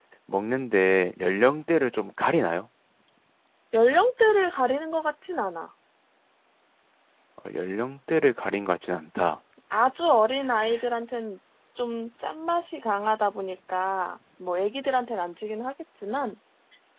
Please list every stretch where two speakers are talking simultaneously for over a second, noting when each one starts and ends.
none

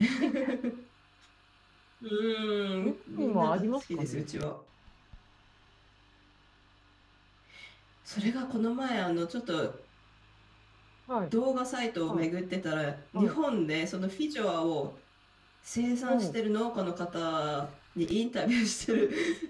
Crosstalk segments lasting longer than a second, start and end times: 2.8-4.2

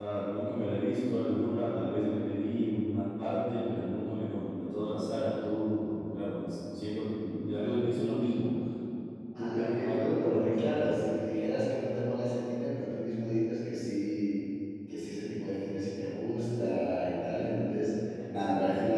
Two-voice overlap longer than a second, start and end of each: 9.4-10.9

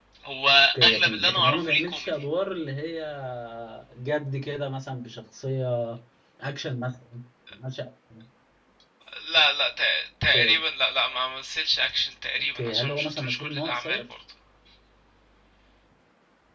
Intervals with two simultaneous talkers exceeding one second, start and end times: 0.8-2.1, 12.6-14.0

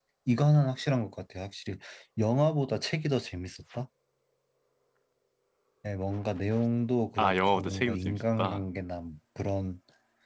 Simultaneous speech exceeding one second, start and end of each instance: 7.2-8.6

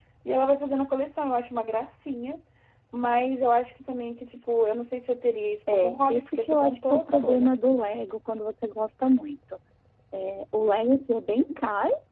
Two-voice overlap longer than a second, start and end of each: 5.7-7.5

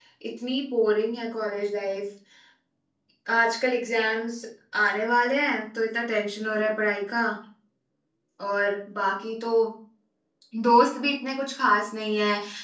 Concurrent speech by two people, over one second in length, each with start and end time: none

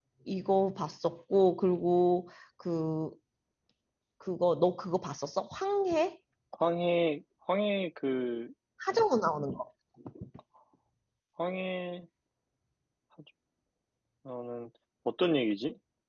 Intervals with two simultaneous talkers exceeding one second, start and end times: none

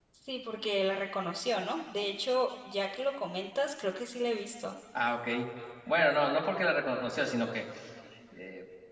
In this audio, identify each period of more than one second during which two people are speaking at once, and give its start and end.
none

